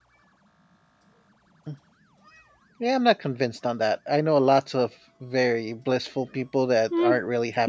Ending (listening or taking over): taking over